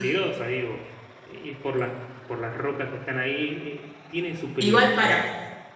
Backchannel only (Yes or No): No